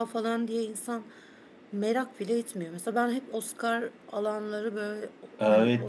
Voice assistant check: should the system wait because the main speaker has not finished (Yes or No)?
No